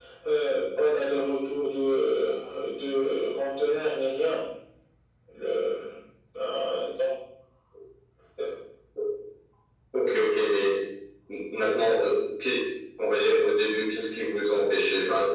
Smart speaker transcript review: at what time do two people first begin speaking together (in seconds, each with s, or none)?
none